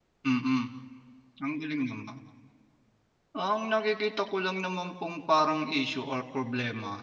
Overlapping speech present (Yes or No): No